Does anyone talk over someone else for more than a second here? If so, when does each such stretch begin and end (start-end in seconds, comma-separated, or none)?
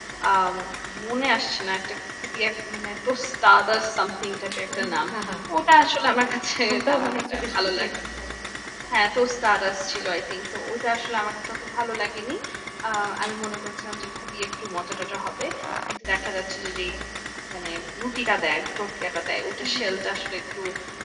6.7-7.9